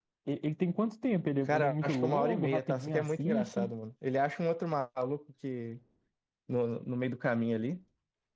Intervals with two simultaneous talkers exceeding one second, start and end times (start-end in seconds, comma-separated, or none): 1.5-3.7